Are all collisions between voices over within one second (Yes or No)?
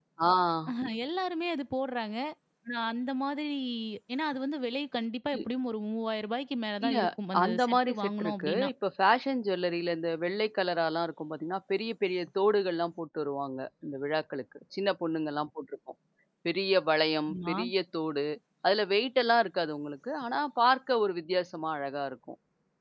No